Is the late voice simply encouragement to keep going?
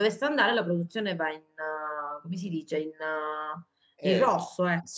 No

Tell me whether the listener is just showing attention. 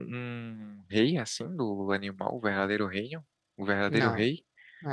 No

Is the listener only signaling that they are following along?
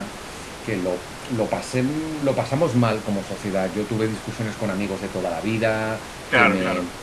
Yes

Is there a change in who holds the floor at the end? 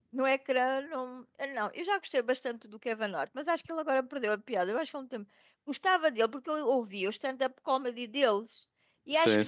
No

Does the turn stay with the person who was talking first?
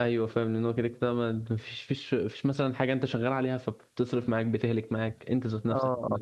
No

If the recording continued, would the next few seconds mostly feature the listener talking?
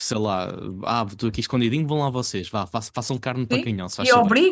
Yes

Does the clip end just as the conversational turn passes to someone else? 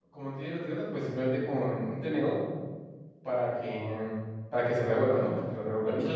No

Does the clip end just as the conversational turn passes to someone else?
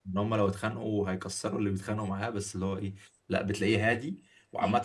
No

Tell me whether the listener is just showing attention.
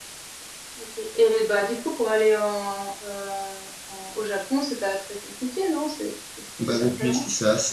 No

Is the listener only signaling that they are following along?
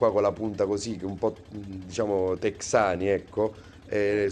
Yes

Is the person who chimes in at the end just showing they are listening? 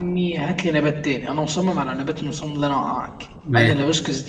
Yes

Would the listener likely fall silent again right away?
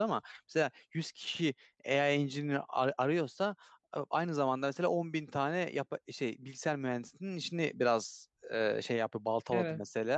Yes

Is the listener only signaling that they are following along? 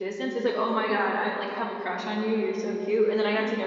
Yes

